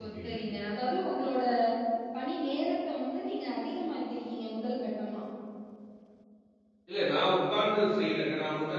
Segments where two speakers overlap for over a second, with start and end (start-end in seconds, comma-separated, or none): none